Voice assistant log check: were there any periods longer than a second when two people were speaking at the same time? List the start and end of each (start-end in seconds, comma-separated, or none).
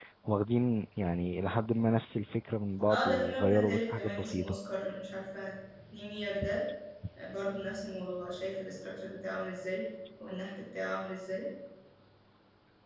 2.9-4.6